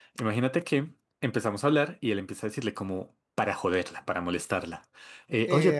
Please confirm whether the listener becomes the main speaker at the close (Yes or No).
Yes